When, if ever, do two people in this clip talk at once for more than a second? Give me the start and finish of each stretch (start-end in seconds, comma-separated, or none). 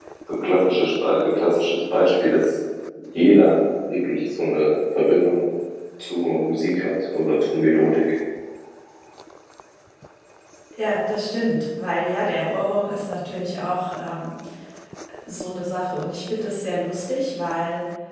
none